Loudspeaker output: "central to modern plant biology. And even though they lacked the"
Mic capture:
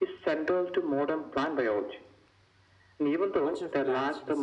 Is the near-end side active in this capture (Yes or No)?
Yes